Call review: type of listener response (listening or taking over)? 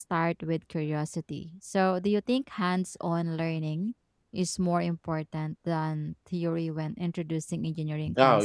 taking over